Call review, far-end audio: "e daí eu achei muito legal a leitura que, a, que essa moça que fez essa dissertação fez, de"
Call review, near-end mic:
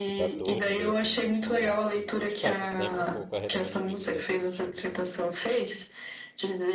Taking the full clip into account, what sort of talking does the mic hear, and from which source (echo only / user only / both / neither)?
both